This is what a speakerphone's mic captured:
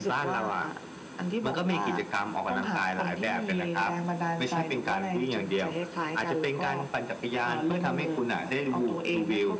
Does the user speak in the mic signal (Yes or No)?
No